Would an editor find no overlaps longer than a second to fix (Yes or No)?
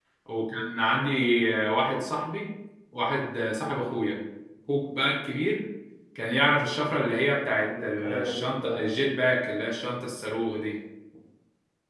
No